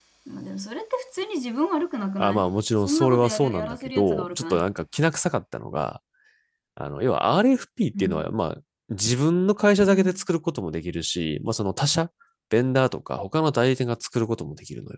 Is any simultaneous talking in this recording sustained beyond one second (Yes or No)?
Yes